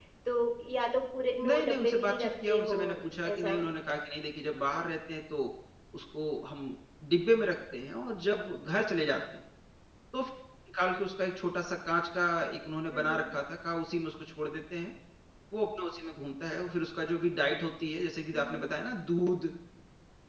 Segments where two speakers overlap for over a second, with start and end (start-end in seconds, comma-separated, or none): 1.4-2.8